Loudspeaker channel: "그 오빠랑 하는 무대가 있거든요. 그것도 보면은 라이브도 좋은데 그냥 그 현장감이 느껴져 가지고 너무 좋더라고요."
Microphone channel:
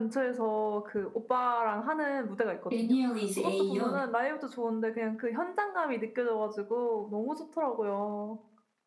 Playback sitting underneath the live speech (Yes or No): Yes